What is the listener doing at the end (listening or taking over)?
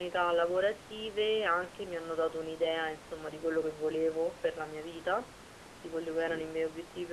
listening